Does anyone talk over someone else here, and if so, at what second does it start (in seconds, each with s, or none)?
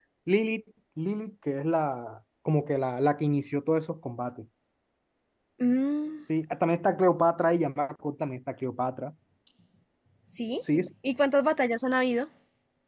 none